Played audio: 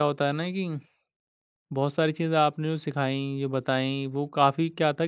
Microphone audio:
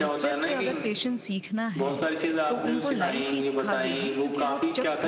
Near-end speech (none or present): present